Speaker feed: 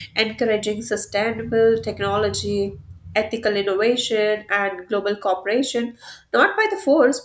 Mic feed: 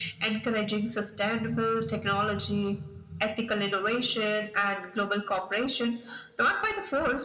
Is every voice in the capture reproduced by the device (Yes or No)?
Yes